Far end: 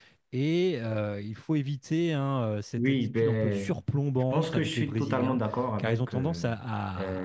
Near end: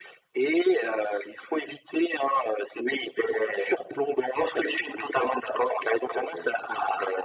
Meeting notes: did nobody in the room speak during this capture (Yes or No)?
Yes